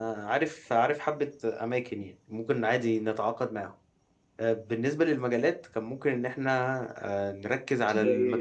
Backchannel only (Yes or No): Yes